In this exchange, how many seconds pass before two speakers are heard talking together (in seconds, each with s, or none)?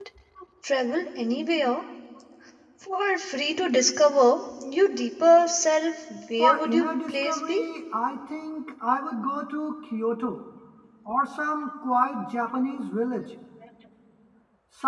6.4 s